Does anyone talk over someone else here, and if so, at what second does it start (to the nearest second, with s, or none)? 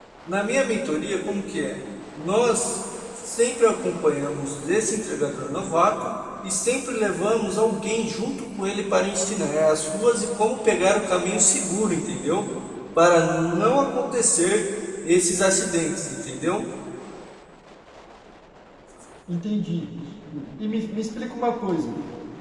none